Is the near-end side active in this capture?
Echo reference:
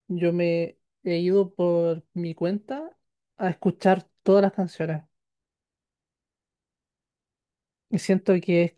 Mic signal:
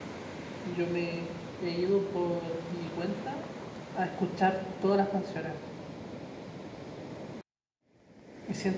No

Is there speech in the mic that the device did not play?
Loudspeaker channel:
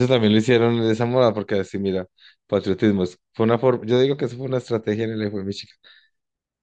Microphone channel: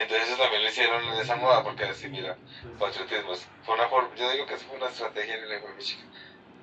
Yes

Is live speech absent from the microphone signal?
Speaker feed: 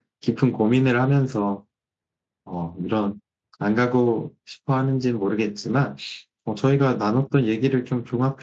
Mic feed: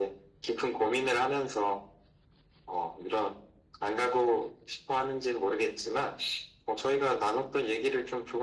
Yes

